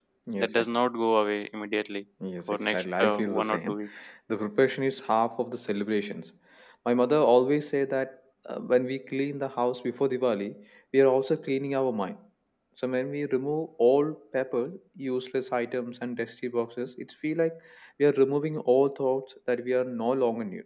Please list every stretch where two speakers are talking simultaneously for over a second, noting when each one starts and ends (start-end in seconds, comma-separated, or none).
2.5-3.8